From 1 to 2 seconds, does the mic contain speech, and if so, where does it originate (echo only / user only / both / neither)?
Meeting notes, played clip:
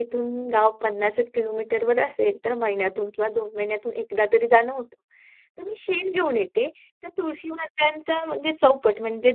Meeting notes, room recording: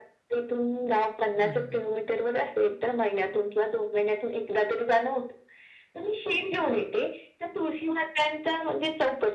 both